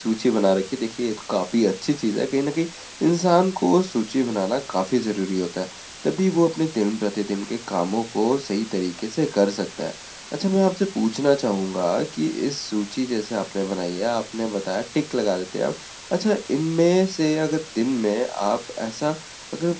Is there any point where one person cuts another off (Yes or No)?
No